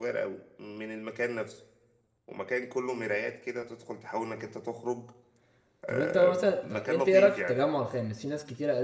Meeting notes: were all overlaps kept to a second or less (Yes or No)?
No